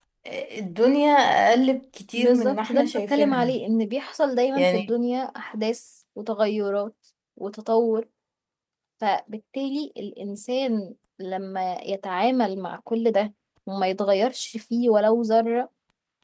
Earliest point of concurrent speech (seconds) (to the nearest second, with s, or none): 2 s